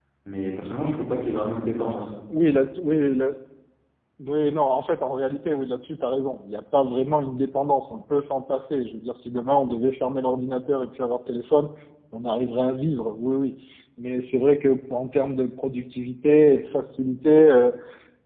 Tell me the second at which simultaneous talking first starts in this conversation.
none

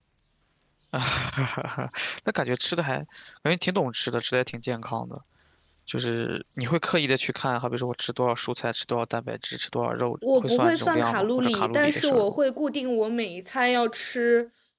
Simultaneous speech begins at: 10.2 s

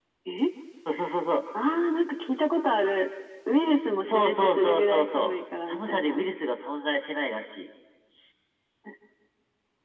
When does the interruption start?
4.0 s

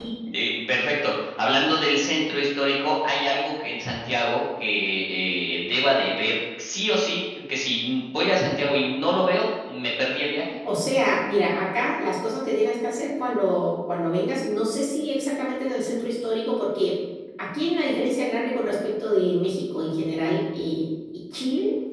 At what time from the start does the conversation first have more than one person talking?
none

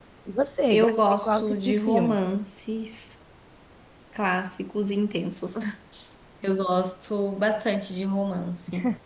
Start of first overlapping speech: 0.7 s

